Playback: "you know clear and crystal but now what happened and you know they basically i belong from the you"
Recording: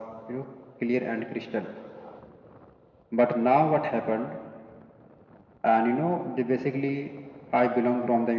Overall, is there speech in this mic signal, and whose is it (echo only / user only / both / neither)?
echo only